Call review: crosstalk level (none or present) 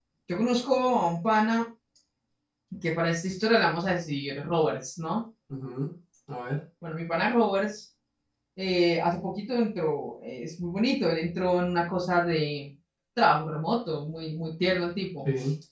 none